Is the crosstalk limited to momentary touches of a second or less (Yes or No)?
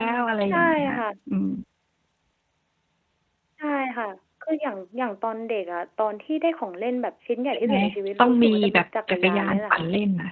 No